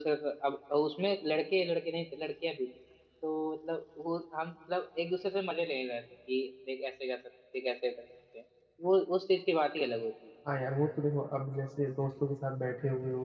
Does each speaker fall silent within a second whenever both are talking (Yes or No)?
Yes